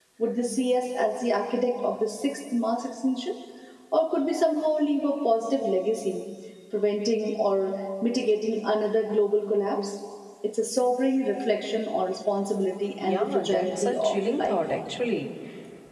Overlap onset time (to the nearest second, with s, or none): 13 s